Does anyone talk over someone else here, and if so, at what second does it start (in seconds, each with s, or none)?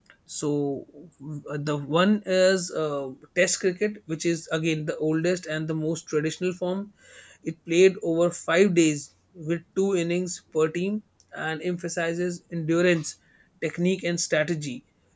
none